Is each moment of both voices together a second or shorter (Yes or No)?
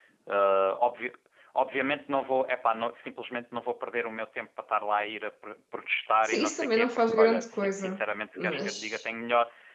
No